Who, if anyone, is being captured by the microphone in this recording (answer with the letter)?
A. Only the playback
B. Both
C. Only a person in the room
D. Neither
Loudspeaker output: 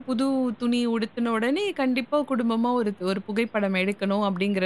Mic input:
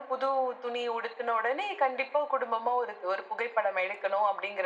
A